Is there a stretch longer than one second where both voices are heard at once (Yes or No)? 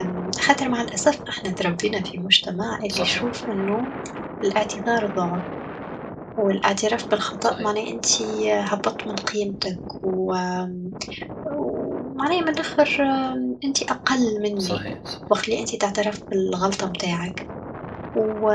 No